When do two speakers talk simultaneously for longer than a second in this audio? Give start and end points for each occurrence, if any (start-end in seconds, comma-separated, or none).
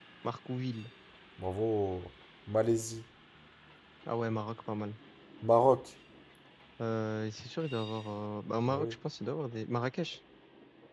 none